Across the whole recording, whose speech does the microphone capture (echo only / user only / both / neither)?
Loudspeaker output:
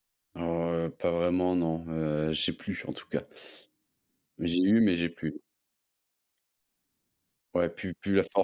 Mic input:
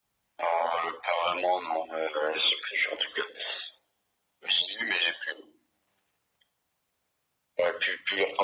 echo only